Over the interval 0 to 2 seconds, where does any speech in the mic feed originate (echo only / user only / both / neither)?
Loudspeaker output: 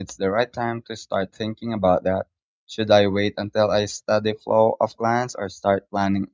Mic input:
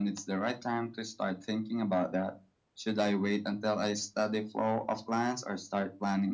echo only